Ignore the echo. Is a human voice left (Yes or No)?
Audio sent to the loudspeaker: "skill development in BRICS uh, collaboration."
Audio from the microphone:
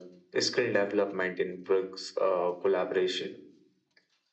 No